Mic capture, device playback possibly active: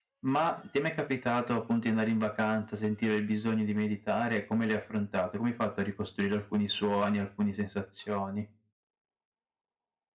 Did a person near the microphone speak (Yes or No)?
Yes